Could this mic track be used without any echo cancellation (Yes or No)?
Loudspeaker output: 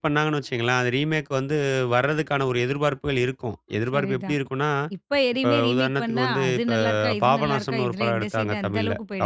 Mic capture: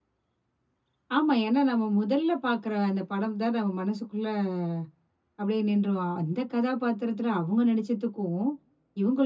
Yes